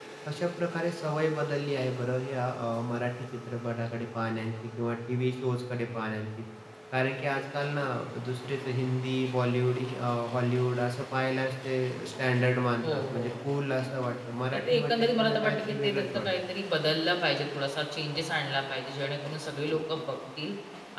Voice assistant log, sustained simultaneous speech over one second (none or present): present